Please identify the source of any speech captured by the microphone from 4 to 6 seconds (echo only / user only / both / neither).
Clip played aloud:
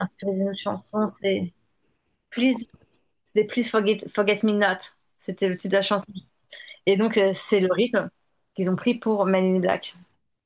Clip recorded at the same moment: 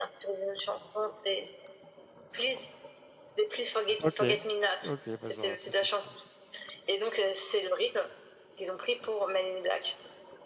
both